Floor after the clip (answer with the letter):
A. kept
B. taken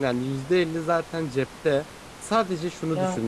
A